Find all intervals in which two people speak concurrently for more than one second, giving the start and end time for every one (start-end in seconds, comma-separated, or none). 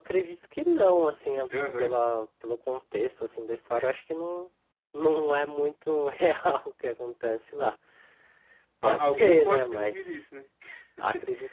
8.8-10.2